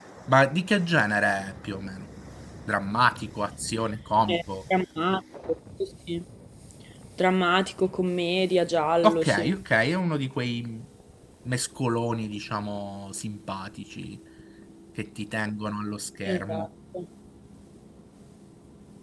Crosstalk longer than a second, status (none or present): none